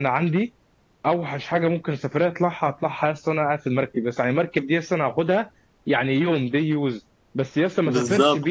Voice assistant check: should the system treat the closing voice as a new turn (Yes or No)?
No